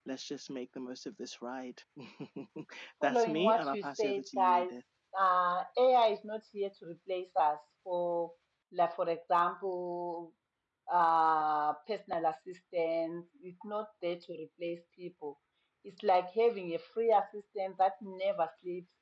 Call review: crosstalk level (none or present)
present